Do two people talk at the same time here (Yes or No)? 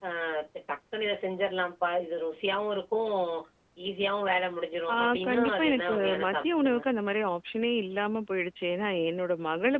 Yes